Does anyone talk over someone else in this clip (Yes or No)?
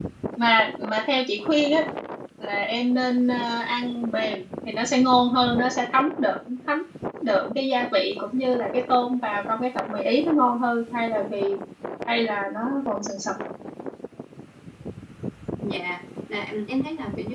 No